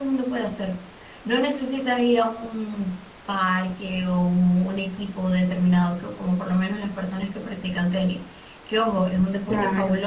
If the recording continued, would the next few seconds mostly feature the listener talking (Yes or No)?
No